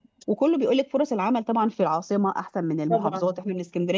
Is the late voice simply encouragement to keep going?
Yes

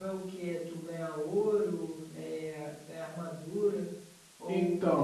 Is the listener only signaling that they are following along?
Yes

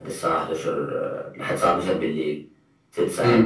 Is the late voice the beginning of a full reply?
Yes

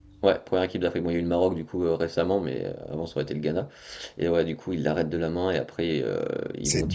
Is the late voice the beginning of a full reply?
Yes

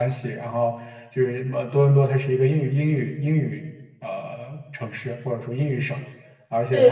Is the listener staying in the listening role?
No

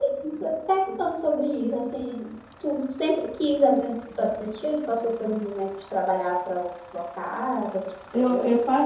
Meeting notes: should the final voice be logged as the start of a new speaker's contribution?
Yes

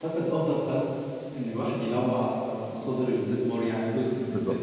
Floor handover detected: No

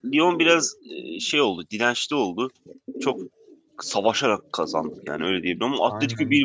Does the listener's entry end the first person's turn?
No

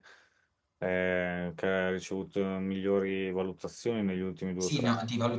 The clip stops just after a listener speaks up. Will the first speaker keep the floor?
No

